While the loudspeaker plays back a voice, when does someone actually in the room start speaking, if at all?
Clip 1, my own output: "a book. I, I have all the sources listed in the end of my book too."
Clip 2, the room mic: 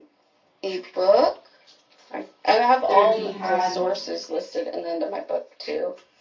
3 s

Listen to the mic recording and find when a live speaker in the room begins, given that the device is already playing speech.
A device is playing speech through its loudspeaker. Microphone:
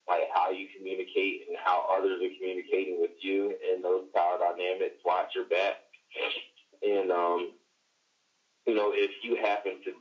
none

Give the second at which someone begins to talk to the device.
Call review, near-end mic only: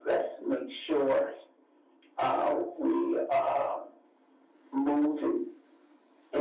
none

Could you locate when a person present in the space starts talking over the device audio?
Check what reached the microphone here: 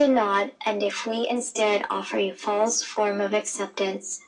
none

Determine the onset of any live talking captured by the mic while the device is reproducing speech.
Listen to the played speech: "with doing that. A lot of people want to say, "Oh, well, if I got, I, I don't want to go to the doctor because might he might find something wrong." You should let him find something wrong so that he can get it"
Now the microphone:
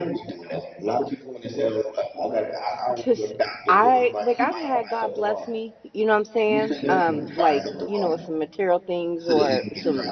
3 s

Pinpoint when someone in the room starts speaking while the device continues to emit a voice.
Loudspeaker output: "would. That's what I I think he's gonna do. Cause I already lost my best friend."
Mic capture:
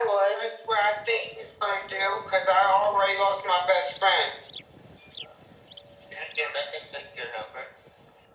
none

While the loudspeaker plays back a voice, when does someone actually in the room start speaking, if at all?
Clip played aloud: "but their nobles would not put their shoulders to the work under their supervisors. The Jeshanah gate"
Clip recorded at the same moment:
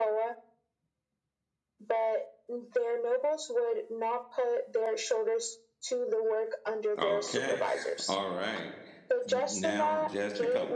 7 s

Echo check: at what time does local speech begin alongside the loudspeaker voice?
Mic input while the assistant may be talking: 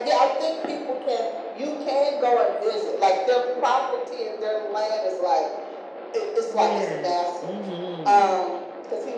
6 s

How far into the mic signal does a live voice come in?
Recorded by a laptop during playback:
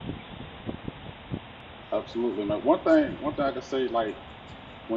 2 s

